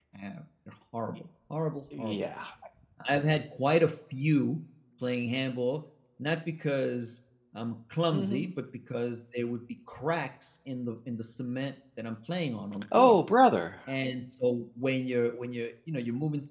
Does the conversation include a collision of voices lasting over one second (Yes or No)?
No